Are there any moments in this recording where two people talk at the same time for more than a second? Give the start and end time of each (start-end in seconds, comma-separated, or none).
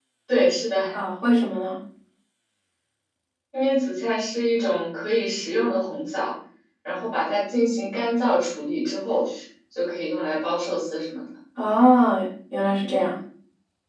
none